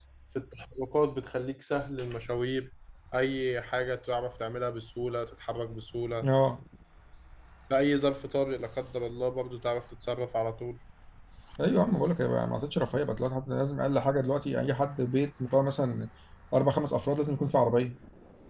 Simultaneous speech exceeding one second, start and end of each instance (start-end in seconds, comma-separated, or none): none